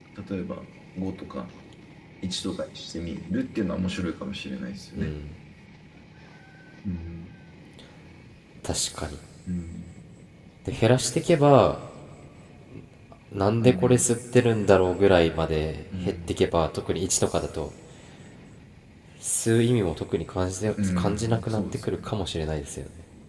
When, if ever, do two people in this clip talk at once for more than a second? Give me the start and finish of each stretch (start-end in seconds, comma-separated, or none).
20.8-22.0